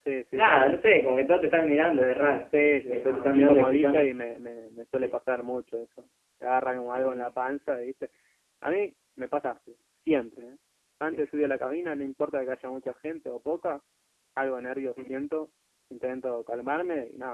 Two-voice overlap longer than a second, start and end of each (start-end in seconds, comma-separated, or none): 2.7-4.1